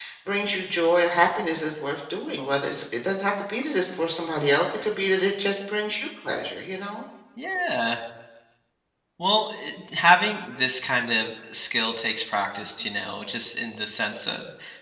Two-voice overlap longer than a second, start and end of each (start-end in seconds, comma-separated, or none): none